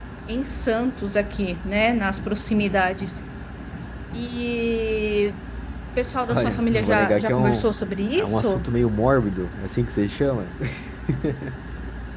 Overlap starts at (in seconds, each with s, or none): 6.3 s